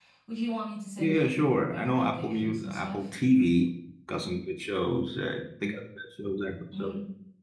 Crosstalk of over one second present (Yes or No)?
Yes